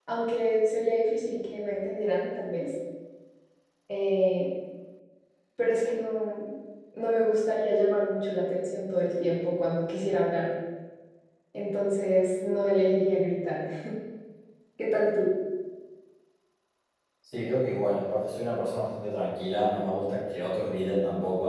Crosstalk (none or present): none